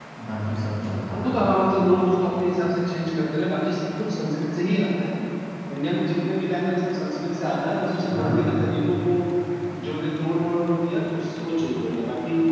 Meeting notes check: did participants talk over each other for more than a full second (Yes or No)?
No